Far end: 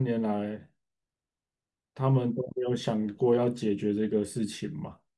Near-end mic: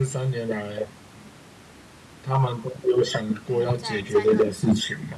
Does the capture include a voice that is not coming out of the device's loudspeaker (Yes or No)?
Yes